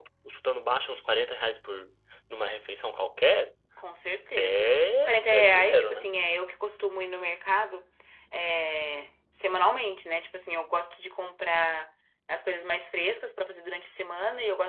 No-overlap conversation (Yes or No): No